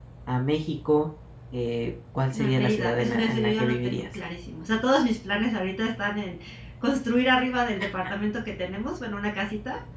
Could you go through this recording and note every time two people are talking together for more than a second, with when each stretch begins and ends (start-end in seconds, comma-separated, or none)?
2.3-4.0